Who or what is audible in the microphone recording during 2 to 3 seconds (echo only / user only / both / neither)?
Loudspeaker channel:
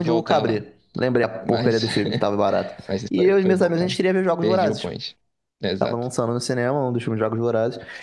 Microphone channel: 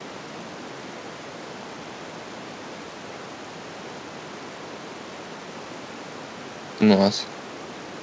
neither